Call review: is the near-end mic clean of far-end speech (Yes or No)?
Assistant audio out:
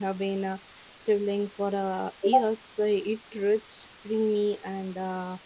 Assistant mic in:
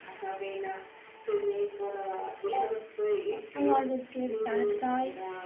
No